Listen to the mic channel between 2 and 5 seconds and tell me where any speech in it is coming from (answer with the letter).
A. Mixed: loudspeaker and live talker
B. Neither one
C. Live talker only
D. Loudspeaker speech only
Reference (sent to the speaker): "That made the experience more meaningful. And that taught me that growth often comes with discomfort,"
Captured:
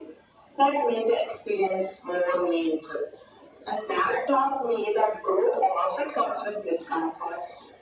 D